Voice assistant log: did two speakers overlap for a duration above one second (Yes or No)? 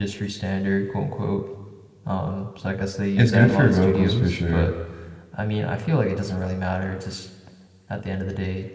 Yes